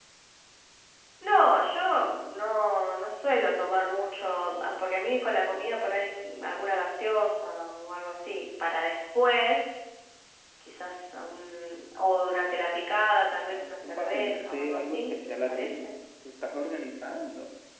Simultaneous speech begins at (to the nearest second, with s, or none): 13 s